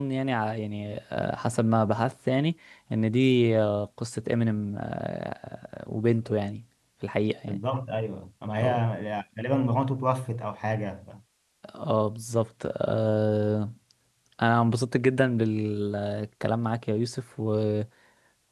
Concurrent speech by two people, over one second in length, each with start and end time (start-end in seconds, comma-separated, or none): none